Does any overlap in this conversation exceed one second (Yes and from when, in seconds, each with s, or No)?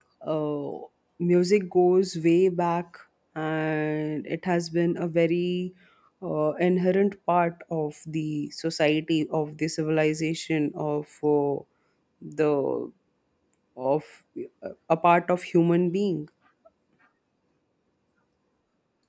No